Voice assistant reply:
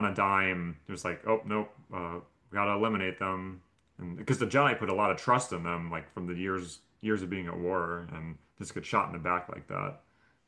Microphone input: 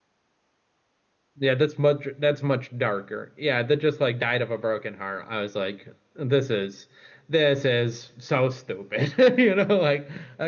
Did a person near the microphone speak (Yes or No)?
Yes